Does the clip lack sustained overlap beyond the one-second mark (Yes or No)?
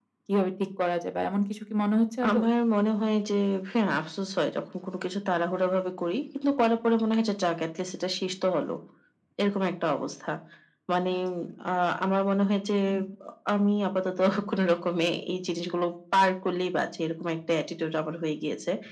Yes